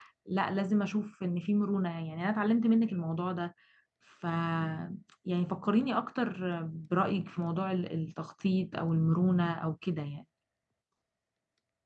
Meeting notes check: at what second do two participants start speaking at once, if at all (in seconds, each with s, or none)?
none